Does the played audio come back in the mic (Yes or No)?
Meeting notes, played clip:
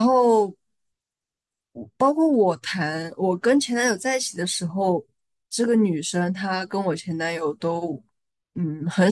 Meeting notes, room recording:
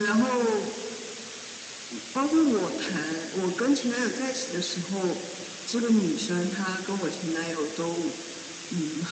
Yes